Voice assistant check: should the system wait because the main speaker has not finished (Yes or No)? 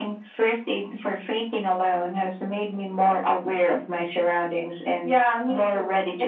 No